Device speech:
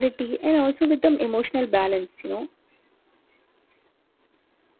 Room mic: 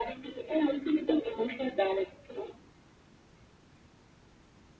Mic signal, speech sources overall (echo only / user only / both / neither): echo only